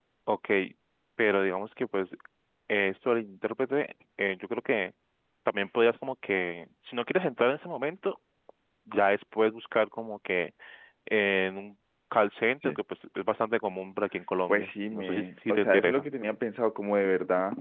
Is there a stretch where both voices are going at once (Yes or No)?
Yes